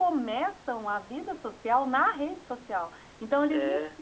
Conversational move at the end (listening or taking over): listening